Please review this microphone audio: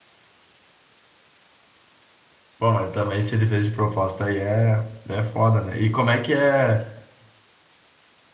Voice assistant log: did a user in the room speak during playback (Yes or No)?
Yes